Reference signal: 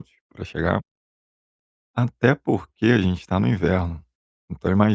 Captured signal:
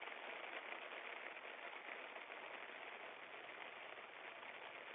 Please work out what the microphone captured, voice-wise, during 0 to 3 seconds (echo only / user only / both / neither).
neither